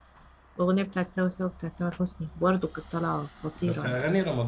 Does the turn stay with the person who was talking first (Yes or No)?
No